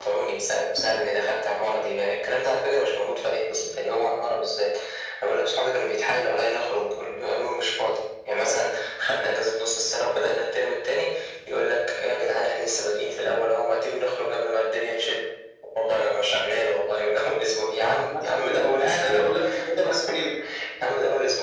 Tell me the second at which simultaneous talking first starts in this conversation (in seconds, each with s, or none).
18.1 s